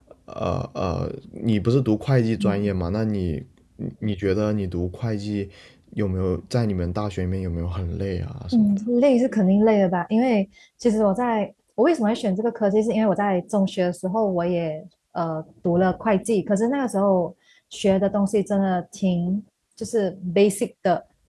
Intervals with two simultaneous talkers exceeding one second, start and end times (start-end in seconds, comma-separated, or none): none